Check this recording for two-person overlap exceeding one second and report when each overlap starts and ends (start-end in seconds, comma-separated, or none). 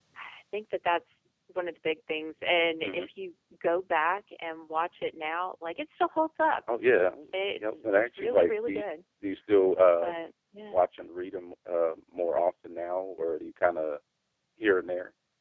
7.6-8.8